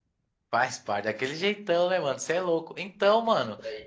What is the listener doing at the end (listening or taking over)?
listening